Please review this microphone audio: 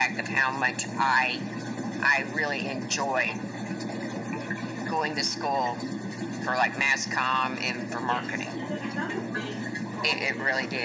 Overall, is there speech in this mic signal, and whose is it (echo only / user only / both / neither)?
both